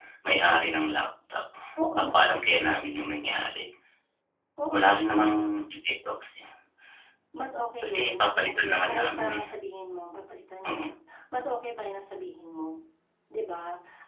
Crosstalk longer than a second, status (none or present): present